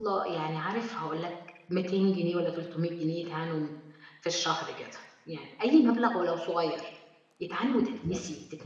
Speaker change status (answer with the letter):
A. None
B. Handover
A